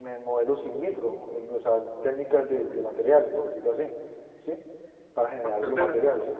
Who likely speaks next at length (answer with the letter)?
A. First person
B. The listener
B